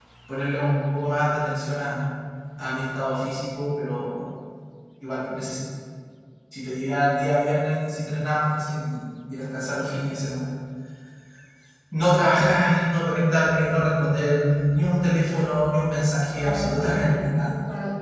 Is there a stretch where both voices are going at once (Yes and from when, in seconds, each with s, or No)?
Yes, from 16.3 s